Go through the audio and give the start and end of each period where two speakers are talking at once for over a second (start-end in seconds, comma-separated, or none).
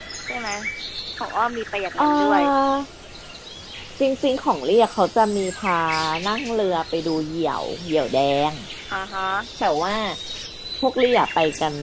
none